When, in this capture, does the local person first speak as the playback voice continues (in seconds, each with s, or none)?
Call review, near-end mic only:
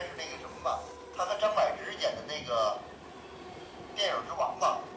none